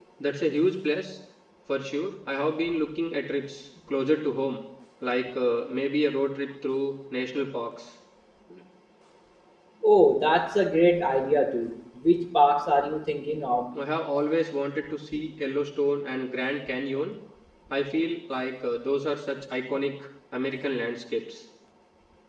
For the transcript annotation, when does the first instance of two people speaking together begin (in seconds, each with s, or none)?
none